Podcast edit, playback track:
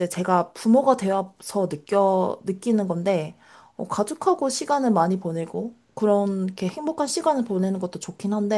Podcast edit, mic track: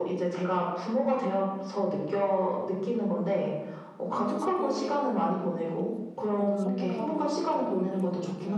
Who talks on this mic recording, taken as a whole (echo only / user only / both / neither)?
both